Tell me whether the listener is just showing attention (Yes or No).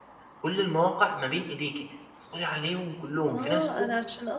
No